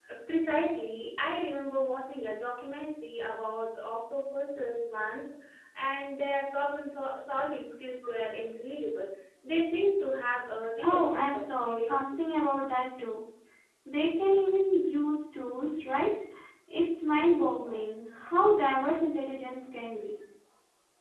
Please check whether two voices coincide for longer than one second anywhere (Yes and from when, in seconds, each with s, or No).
Yes, from 10.8 s